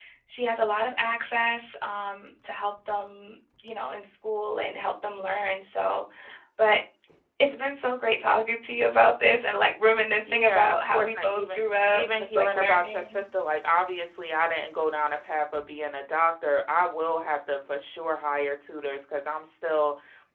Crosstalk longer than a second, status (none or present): present